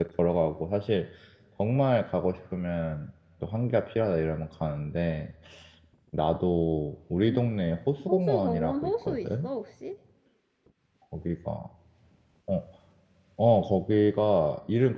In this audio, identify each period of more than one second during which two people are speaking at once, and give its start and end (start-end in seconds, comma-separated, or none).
8.1-9.5